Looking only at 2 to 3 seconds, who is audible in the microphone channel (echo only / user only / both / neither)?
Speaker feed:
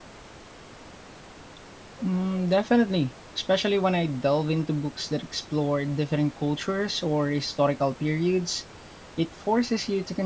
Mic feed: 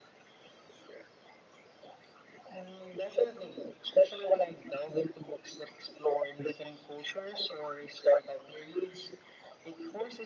echo only